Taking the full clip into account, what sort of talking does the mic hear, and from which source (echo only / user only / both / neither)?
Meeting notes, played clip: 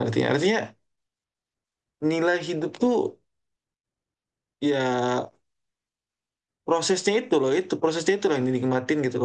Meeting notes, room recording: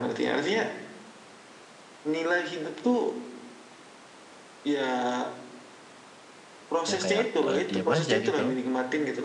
both